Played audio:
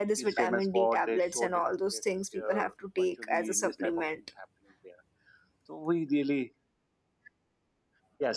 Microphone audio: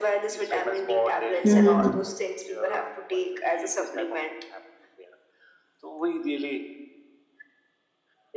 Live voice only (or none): Mm-hmm.